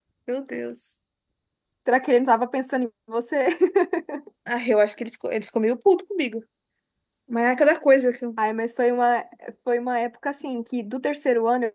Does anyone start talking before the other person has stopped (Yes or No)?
No